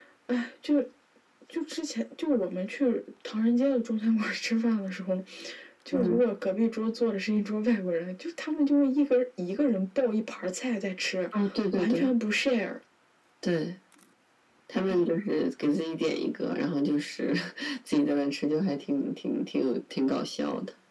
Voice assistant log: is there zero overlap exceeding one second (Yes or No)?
Yes